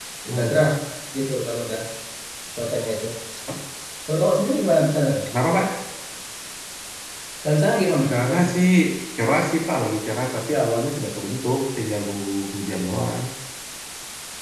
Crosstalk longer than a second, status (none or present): none